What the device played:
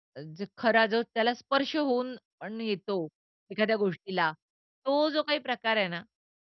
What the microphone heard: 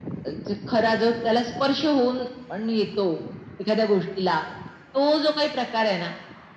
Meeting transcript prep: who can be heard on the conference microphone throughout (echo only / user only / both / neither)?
echo only